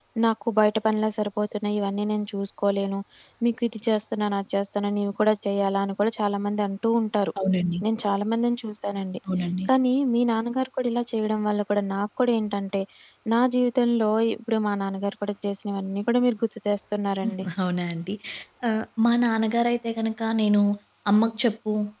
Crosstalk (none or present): none